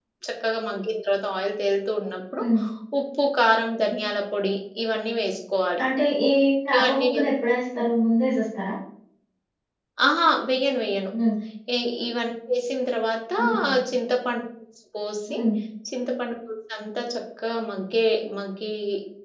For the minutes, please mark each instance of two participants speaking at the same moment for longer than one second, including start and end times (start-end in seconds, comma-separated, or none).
none